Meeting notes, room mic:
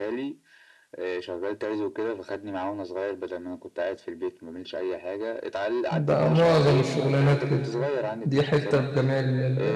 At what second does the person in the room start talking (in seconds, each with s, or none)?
5.9 s